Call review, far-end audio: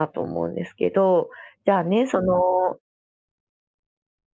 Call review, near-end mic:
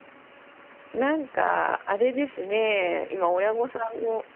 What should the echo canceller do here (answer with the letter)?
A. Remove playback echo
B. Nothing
B